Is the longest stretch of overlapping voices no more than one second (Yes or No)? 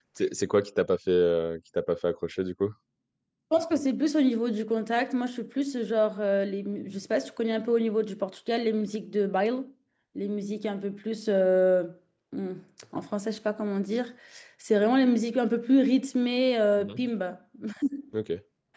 Yes